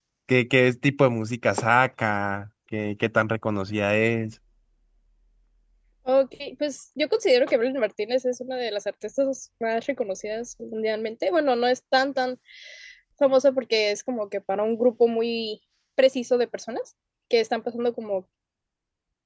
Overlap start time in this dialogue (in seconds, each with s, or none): none